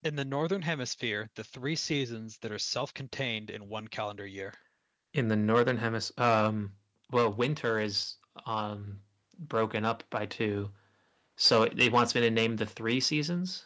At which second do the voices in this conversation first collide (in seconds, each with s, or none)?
none